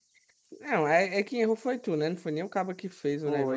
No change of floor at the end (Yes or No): No